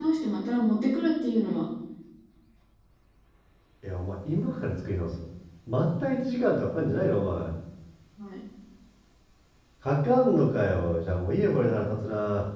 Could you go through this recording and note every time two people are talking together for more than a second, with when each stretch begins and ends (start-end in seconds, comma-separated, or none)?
none